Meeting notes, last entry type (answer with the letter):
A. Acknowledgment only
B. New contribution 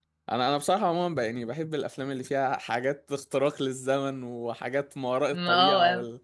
A